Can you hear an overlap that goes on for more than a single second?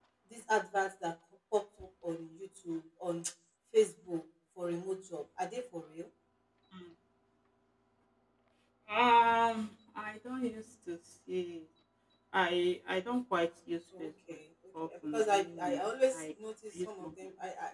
Yes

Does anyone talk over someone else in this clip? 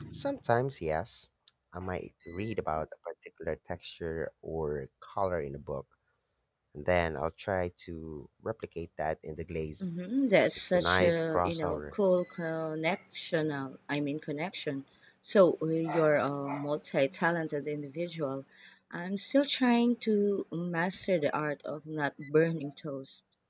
Yes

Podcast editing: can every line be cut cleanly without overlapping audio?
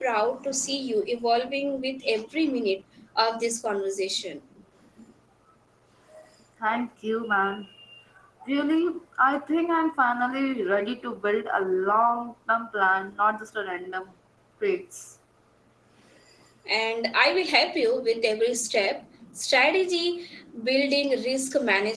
Yes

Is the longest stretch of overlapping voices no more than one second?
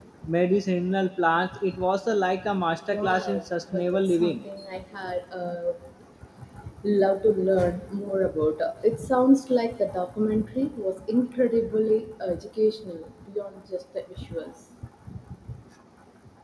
No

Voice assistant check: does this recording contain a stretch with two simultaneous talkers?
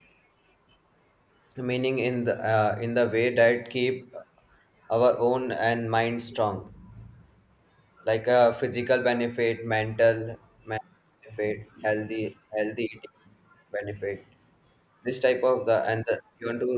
No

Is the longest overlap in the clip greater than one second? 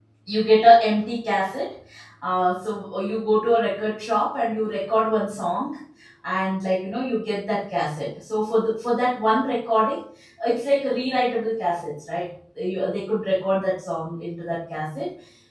No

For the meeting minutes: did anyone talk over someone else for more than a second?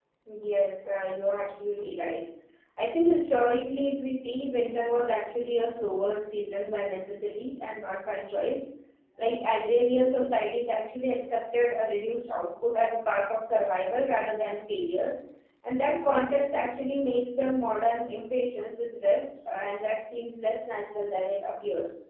No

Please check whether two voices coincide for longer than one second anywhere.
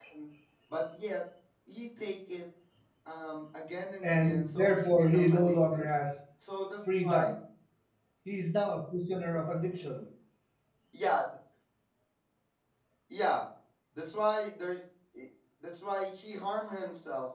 Yes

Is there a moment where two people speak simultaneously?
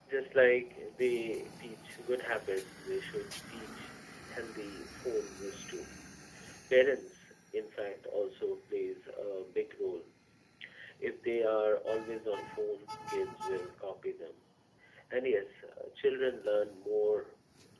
No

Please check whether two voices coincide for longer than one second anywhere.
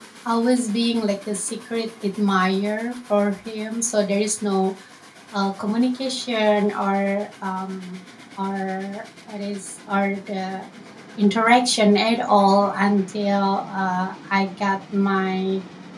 No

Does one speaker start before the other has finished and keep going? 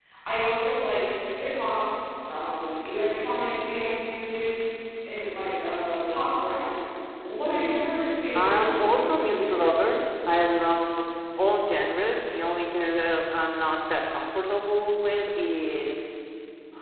Yes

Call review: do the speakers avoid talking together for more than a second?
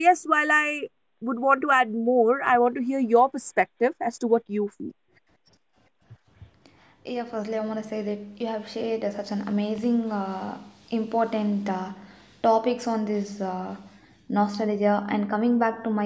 Yes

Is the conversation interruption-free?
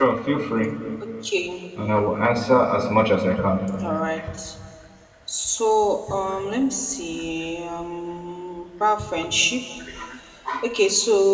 Yes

